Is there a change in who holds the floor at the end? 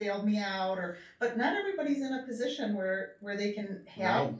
No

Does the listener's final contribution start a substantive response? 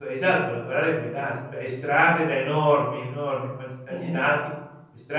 No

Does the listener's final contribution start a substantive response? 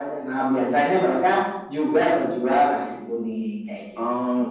Yes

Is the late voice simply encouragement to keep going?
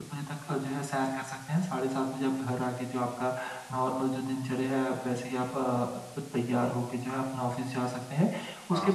Yes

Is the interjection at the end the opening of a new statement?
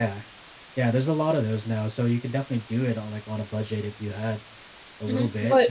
Yes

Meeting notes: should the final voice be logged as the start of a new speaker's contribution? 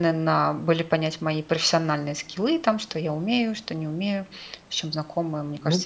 Yes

